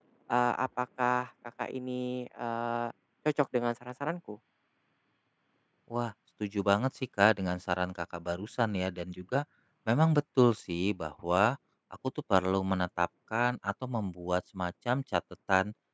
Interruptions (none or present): none